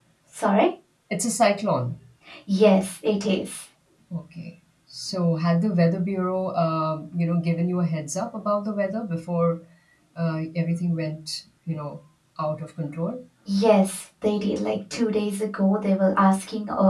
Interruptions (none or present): none